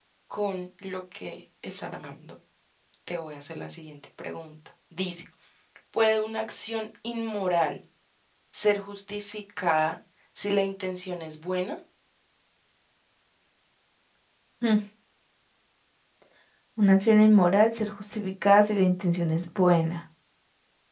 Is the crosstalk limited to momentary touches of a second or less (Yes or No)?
Yes